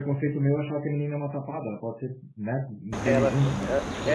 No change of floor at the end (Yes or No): No